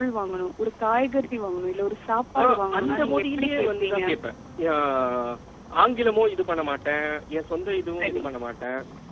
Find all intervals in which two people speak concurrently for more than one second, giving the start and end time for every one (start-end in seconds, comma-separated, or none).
2.4-4.0